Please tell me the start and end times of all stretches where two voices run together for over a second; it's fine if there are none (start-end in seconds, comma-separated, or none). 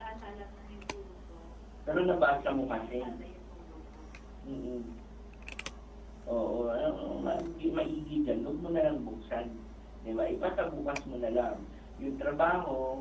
1.9-3.2